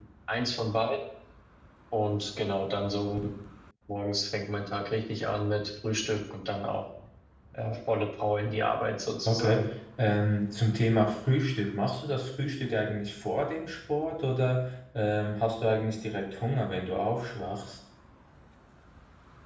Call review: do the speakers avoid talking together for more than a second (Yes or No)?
Yes